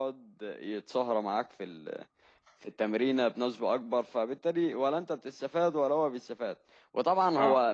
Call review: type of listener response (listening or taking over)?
listening